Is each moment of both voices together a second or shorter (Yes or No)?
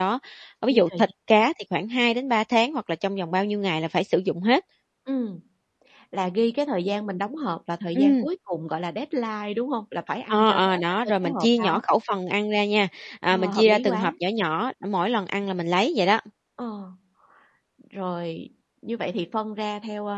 No